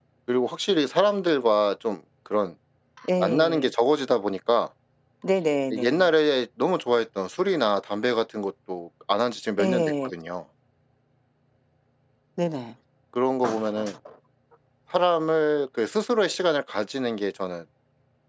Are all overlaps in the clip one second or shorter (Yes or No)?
Yes